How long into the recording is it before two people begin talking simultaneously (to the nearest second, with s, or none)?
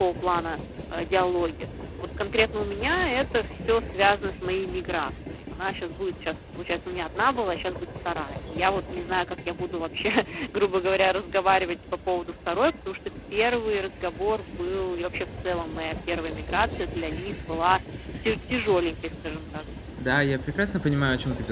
none